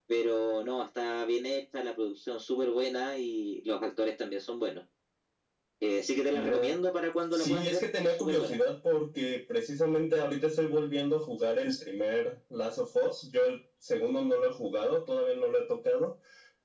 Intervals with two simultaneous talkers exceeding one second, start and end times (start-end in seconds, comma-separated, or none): 7.3-8.6